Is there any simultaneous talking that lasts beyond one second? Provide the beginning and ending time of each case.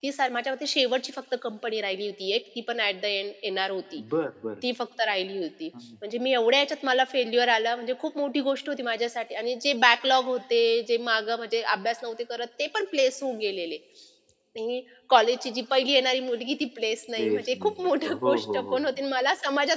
17.2-18.9

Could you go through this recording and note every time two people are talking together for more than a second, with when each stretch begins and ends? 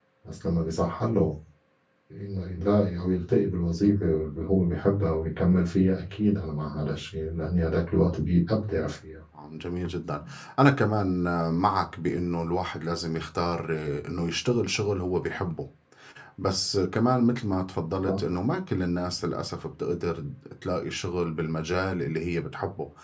none

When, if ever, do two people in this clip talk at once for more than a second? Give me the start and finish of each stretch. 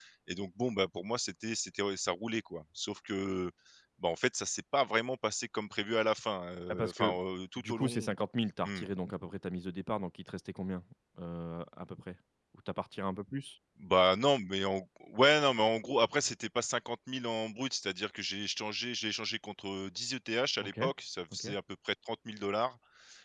none

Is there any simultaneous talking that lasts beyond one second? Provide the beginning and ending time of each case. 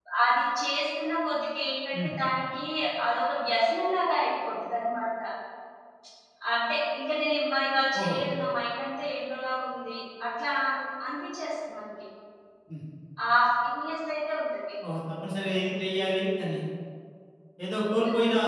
none

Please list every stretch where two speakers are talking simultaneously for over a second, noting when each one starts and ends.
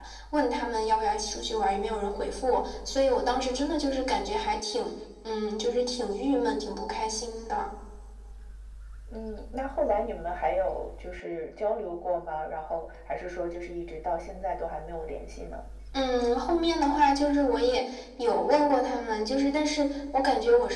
none

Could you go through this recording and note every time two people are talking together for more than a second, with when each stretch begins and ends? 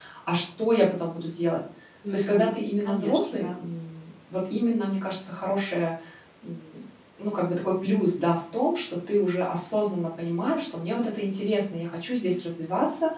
2.1-3.5

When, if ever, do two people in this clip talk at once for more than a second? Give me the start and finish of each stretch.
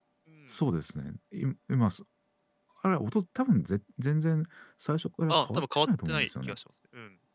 5.3-6.5

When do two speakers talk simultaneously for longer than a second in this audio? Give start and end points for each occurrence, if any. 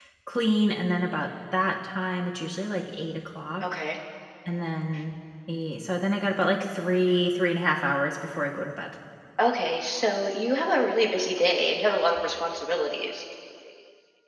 none

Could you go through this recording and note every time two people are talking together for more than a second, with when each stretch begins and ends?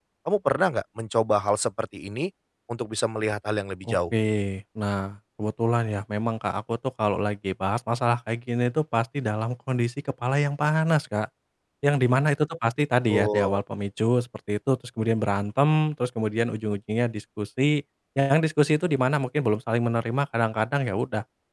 none

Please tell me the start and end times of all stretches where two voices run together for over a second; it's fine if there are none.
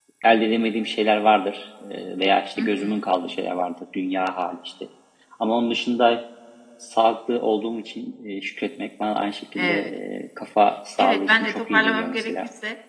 11.0-12.3

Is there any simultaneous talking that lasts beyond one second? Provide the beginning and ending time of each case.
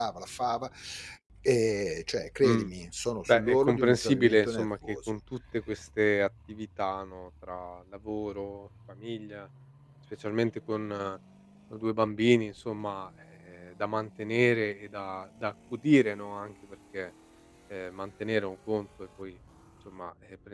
3.3-5.2

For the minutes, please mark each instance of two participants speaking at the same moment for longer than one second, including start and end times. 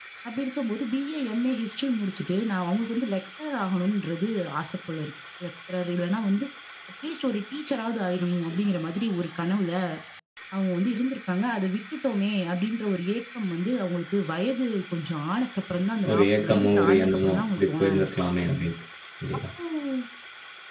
16.1-18.2

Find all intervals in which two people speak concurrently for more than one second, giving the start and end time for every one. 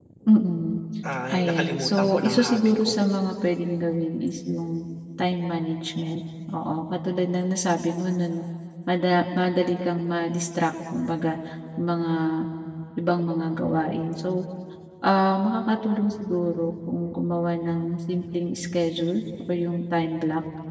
1.3-2.9

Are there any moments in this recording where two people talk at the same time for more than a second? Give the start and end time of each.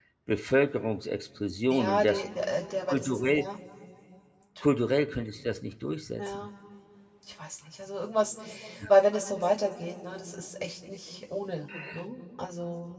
none

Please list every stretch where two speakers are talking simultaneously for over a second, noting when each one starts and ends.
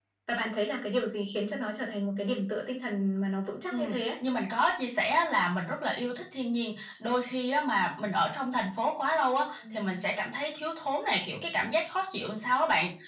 none

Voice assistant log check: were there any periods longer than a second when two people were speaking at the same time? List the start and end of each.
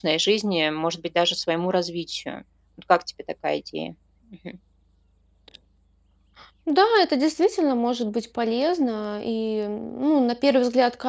none

